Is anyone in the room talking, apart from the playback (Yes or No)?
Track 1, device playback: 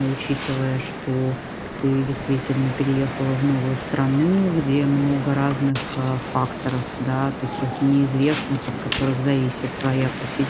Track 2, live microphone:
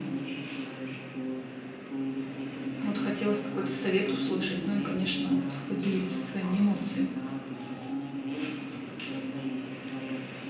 Yes